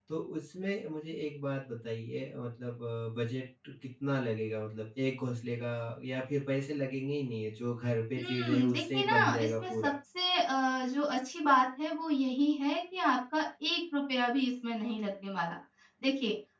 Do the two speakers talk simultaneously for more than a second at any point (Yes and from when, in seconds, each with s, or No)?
Yes, from 8.2 s